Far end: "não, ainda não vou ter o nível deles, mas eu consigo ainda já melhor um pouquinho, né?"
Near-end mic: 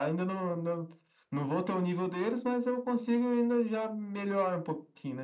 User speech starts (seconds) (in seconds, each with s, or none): none